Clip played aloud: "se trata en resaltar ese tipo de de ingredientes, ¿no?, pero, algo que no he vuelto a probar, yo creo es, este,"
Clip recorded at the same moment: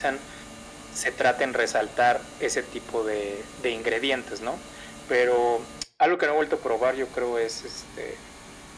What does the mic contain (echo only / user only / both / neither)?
echo only